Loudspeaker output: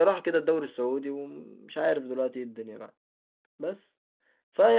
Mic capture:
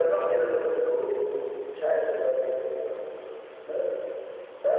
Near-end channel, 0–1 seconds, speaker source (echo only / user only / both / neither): echo only